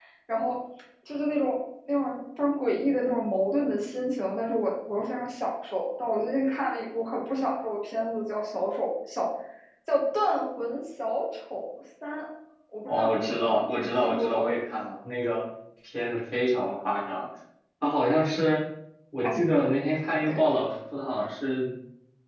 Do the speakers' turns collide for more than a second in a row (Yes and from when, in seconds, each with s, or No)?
Yes, from 12.9 s